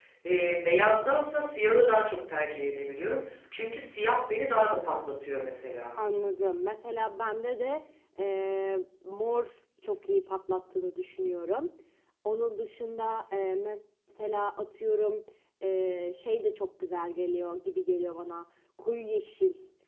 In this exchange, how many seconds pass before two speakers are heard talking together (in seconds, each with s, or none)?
none